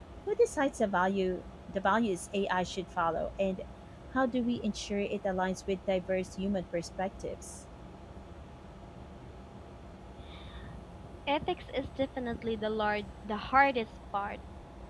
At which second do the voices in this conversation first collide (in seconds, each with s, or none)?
none